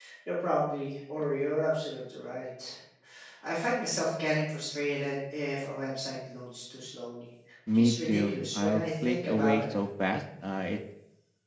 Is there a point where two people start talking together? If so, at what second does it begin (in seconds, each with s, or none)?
7.7 s